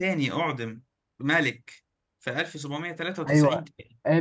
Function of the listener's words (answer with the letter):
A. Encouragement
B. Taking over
B